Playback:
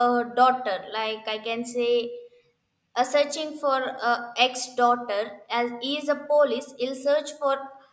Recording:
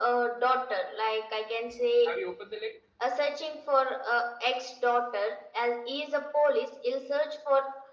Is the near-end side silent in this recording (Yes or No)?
No